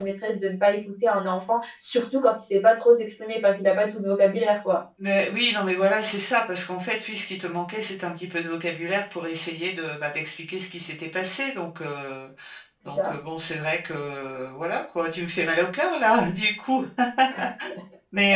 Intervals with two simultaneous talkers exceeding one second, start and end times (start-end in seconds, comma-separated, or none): none